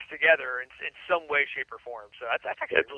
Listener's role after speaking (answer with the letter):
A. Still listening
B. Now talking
A